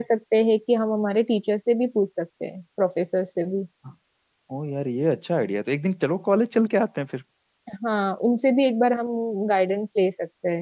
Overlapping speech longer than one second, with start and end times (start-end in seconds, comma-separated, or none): none